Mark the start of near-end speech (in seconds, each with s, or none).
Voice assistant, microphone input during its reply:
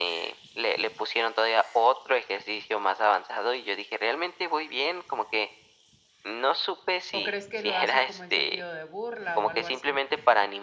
7.1 s